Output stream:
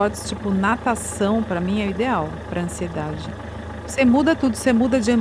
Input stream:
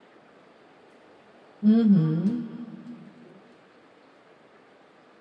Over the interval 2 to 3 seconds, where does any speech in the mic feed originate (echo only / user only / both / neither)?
user only